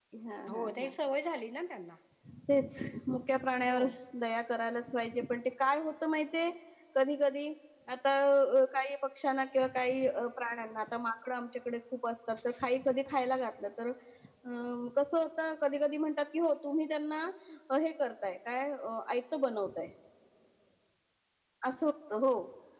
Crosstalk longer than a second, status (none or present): none